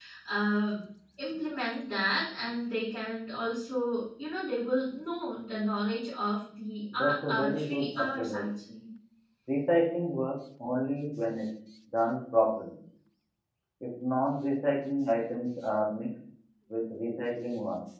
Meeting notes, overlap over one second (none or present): present